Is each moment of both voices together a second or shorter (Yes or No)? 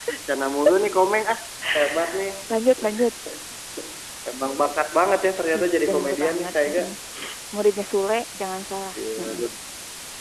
No